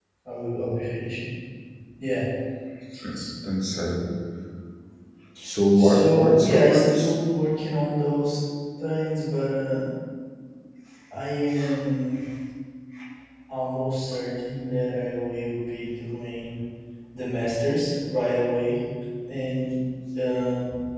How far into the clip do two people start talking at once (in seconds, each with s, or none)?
5.8 s